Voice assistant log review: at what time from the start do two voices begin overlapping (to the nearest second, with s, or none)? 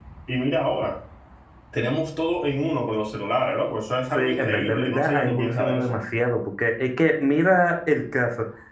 4 s